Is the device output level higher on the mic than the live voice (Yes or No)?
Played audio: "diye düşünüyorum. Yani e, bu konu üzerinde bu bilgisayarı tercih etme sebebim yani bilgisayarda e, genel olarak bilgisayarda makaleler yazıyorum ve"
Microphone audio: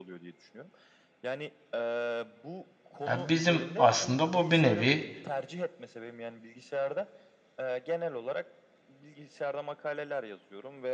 No